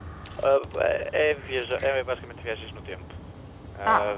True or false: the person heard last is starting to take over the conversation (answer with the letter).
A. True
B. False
A